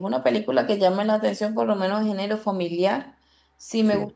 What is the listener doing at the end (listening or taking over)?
listening